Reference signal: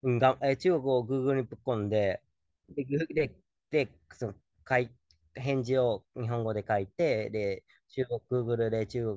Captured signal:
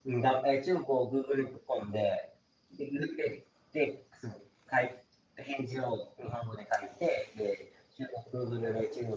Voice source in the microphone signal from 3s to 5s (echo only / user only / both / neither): echo only